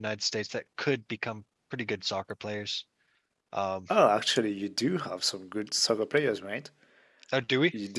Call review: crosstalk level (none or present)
none